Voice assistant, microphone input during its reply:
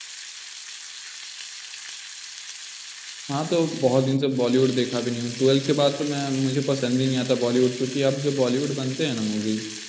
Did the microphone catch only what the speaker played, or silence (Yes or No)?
No